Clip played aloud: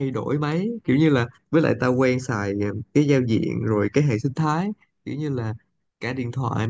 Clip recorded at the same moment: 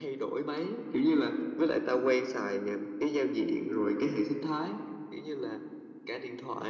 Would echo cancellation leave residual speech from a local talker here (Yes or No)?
No